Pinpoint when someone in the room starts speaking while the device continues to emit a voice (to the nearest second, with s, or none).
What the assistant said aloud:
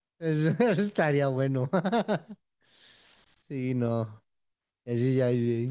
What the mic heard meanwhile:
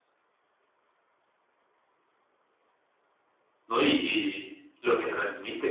4 s